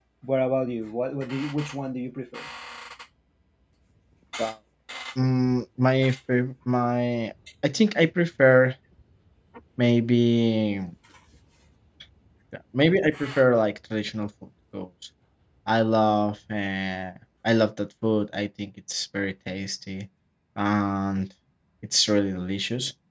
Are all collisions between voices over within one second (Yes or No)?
Yes